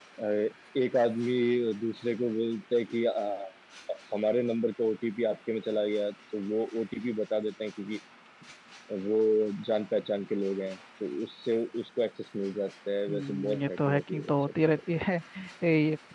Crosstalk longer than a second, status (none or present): present